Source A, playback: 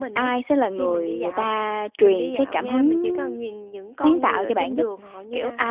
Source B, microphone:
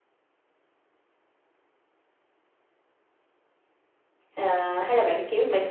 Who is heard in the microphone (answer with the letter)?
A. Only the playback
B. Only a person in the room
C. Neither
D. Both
B